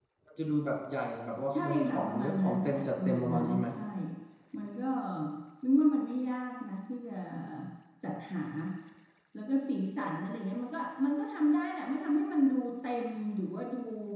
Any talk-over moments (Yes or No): Yes